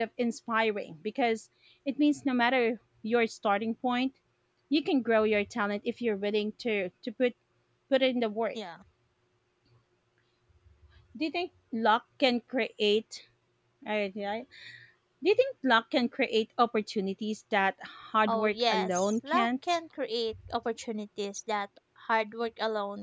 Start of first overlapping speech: 18.3 s

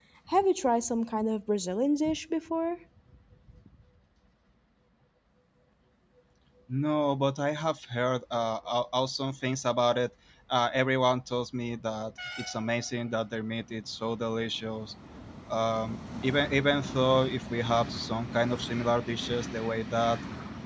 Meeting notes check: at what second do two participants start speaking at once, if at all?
none

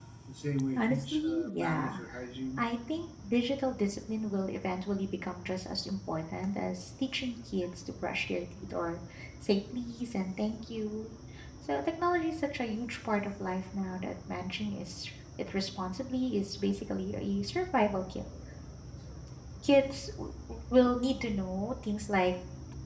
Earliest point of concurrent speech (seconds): 0.8 s

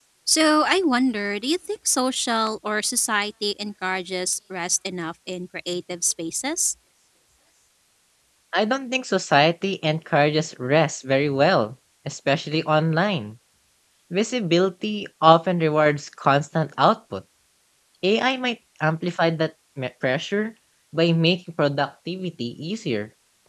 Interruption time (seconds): none

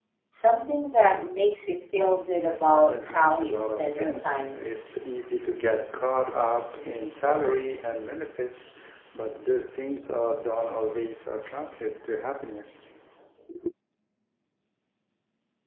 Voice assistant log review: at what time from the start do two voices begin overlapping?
2.6 s

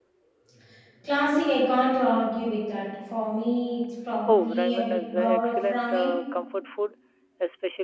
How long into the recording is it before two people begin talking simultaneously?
4.3 s

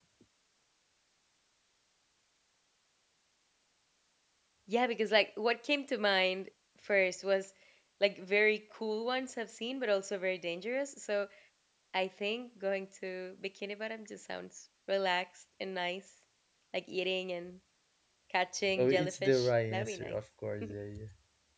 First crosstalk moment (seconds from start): 18.8 s

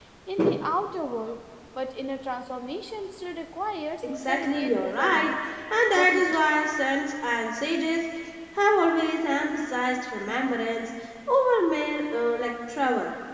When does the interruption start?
4.2 s

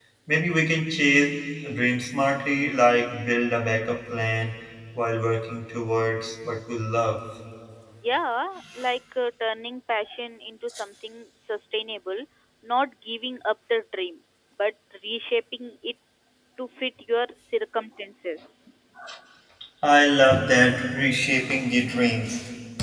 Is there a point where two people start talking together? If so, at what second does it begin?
none

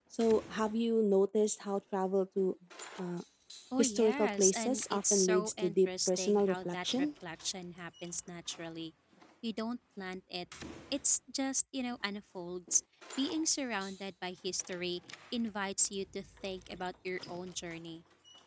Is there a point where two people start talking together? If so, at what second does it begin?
3.8 s

